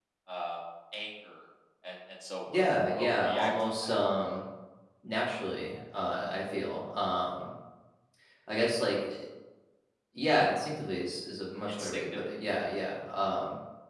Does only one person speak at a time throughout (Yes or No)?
No